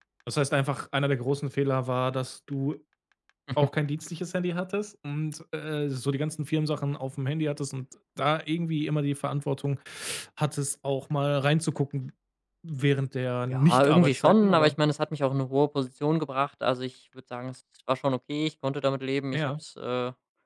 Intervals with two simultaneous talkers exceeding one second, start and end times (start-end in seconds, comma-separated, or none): 13.5-14.8